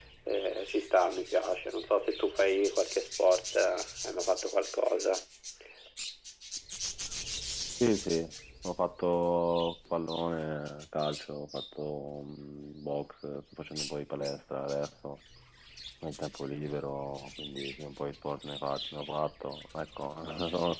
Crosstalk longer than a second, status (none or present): none